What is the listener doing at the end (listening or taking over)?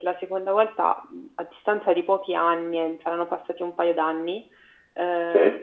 listening